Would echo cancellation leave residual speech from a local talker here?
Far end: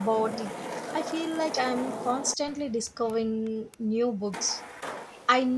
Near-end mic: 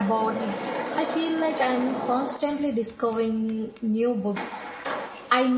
No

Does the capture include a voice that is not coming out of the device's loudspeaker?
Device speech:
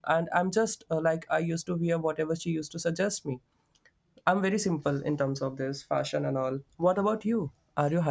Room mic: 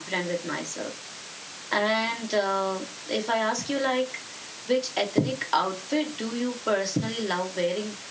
Yes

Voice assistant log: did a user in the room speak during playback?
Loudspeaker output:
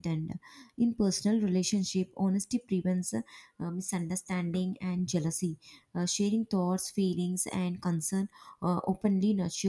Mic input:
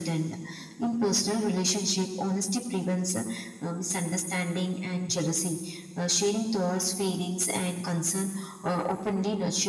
No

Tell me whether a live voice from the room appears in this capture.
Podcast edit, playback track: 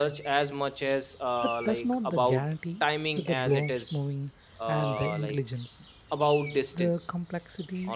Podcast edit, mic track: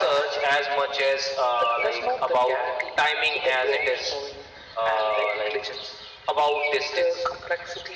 No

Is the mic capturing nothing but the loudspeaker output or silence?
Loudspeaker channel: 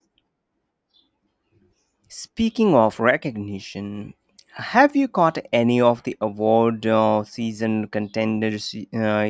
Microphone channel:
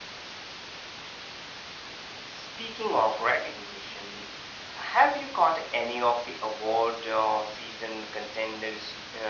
Yes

